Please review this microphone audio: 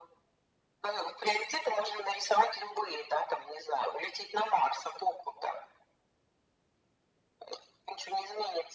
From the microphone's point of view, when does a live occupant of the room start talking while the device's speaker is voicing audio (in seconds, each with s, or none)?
none